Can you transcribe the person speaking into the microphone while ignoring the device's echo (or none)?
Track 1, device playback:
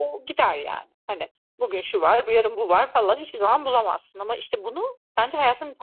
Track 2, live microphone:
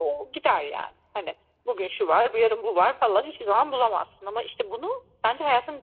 none